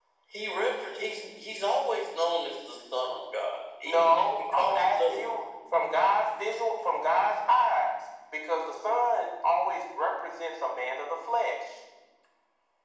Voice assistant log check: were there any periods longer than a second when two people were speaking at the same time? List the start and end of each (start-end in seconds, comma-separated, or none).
3.8-5.2